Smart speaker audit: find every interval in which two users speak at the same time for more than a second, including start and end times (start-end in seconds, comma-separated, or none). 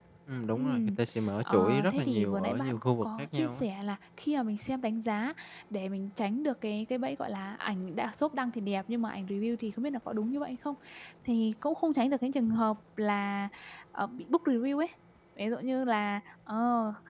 1.4-3.7